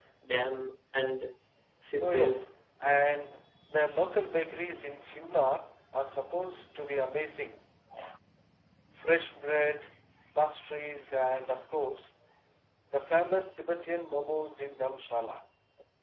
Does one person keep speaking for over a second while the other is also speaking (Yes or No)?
No